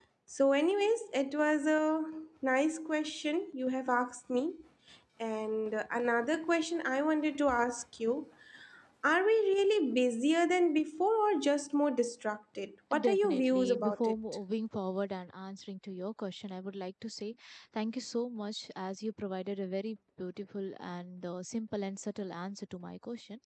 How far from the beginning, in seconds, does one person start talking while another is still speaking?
12.9 s

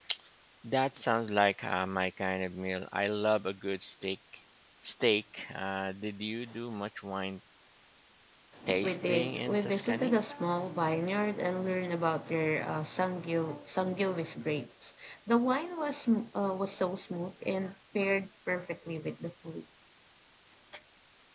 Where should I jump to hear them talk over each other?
8.8 s

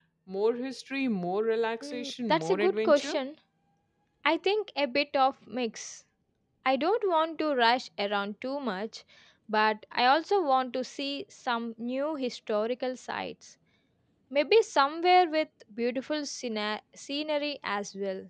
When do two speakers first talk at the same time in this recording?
1.8 s

